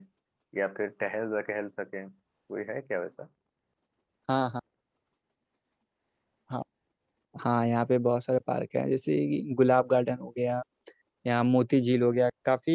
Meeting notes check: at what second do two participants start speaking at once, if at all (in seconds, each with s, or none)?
none